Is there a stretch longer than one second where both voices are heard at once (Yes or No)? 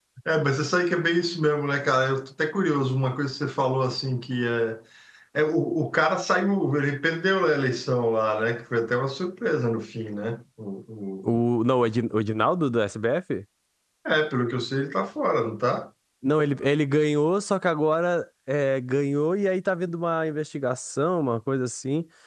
No